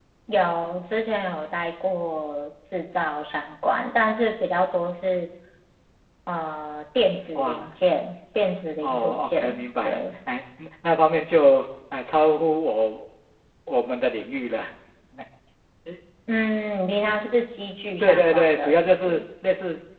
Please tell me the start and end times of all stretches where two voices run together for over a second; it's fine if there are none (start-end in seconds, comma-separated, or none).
8.8-10.1, 18.0-19.2